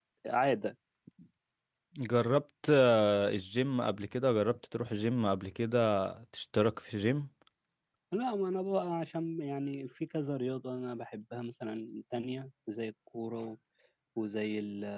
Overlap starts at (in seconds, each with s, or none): none